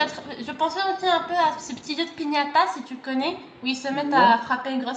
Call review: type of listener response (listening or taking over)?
listening